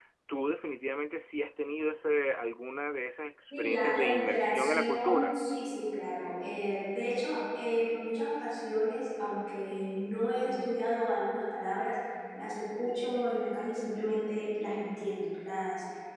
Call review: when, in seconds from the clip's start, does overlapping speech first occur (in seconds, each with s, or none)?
3.5 s